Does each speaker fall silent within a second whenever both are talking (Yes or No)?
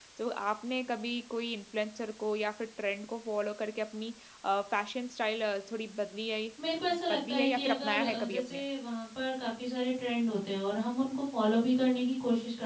No